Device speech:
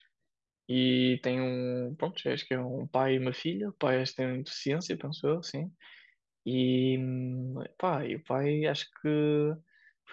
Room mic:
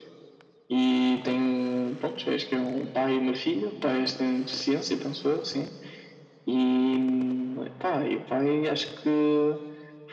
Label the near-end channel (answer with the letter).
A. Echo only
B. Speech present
A